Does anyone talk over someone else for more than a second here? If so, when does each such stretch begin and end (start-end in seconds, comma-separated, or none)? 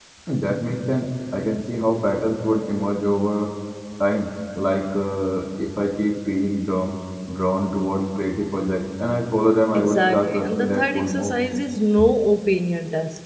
9.7-11.4